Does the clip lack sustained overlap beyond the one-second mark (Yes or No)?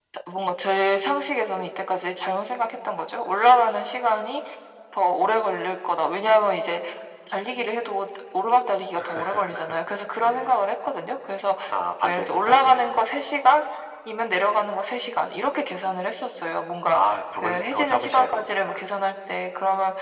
No